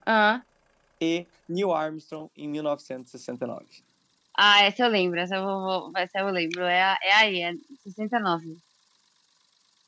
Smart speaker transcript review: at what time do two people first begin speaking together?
none

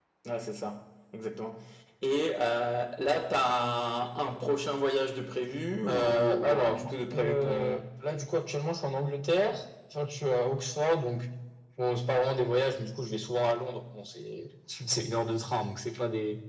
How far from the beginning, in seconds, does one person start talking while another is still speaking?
5.9 s

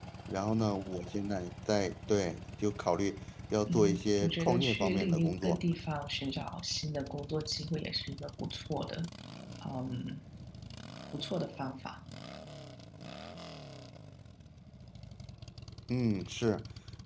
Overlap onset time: 3.7 s

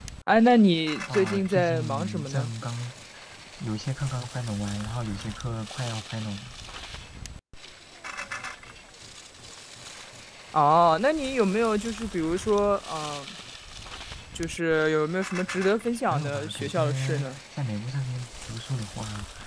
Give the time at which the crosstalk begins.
1.1 s

